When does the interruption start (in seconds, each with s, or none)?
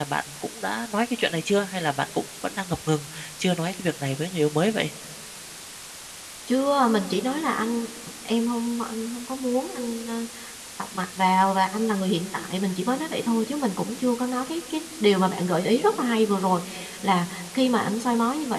none